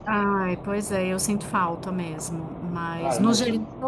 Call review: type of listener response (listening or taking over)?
listening